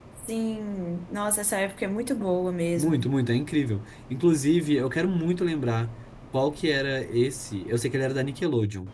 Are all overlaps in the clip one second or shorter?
Yes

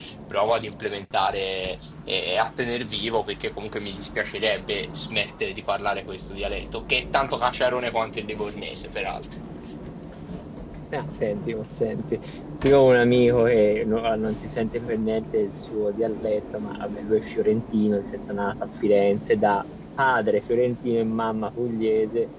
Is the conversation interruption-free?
Yes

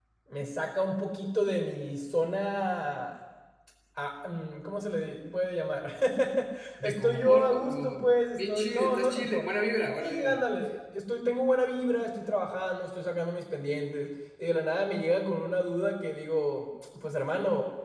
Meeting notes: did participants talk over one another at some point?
Yes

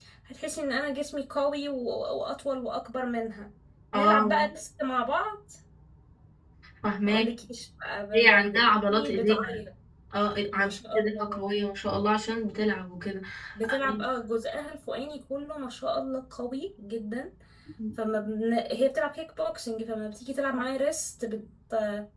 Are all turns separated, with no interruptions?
No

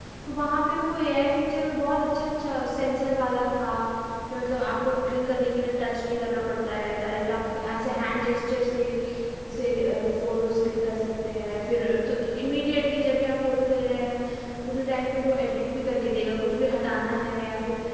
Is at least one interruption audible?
No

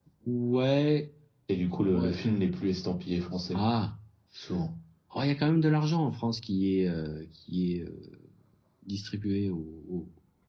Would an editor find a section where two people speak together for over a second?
No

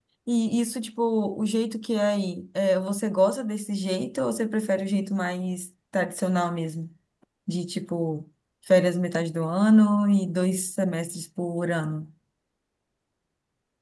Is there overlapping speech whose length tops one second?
No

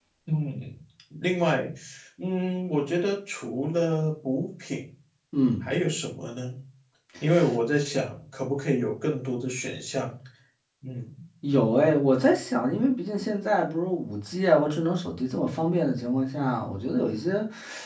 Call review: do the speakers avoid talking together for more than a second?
Yes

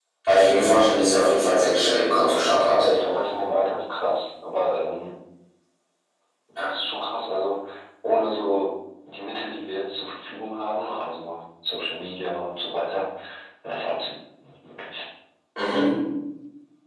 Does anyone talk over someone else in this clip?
No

